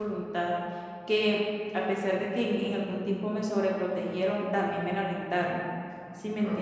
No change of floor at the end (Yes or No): No